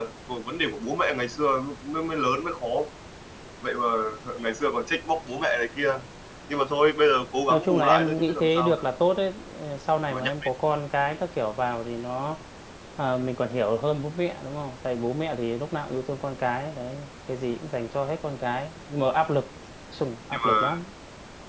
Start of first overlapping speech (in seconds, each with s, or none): 7.5 s